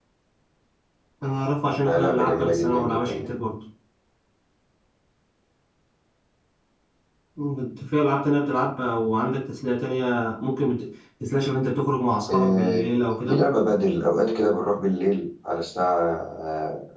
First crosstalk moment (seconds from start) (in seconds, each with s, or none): 1.8 s